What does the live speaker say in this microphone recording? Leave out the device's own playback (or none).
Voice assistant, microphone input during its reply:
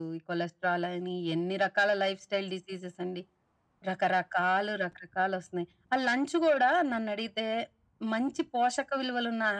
none